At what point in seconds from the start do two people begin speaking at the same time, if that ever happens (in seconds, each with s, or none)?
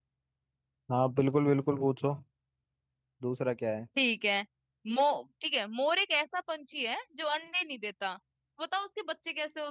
none